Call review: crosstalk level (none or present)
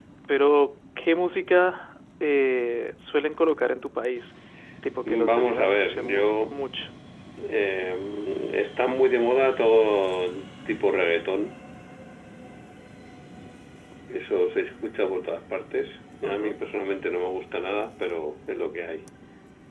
present